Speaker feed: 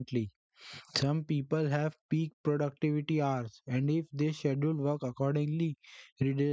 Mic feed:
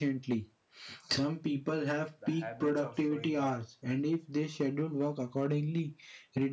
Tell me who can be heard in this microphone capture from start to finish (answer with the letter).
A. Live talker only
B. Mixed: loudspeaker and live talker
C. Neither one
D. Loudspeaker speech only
B